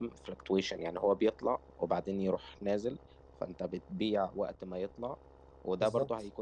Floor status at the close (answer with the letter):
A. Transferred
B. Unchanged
B